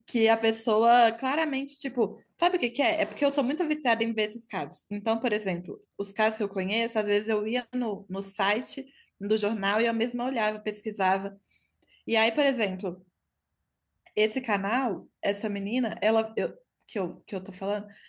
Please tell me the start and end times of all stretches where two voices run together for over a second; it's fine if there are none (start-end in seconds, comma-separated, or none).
none